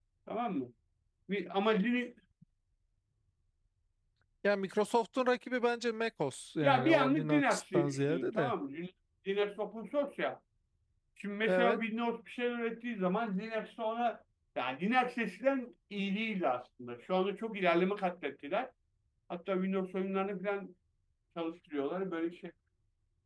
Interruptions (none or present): present